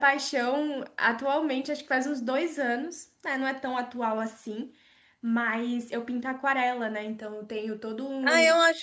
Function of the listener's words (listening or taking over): taking over